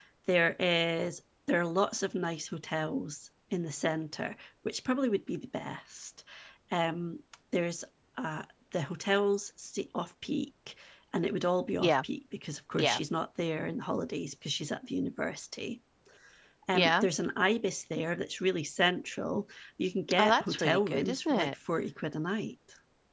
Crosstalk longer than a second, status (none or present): present